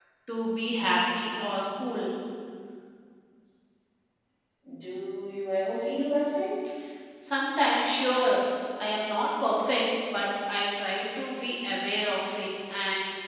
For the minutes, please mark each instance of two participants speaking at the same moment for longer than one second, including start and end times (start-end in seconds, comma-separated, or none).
none